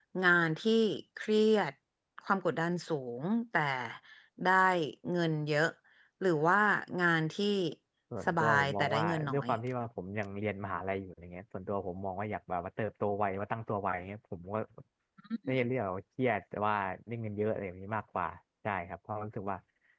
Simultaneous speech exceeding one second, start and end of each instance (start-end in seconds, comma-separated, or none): 8.3-9.5